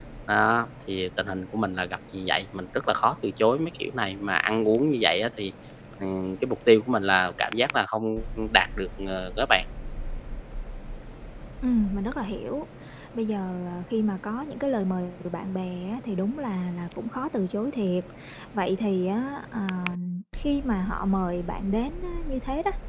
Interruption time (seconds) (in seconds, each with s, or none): none